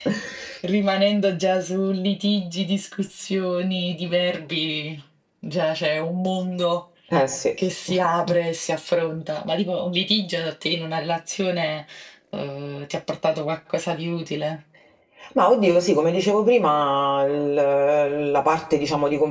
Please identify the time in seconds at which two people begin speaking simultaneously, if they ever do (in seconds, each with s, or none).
none